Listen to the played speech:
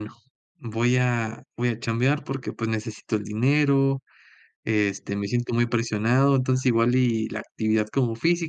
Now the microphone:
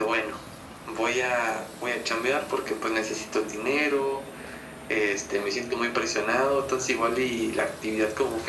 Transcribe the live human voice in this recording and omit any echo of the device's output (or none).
none